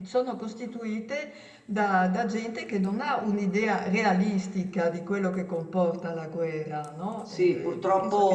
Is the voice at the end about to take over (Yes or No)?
Yes